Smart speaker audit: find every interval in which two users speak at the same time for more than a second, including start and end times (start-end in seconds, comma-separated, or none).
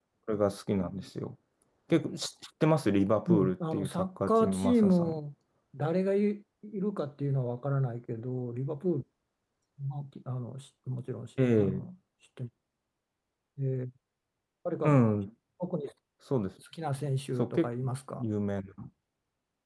3.3-5.2